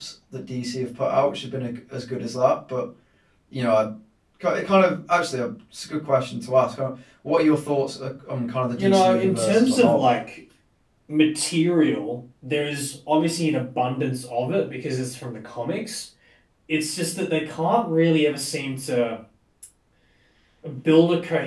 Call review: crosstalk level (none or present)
present